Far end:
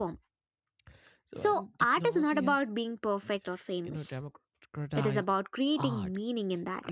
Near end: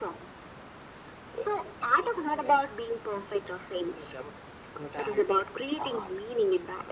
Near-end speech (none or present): none